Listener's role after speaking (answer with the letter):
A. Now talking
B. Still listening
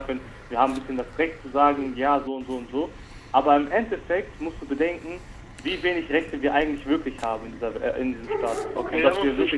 A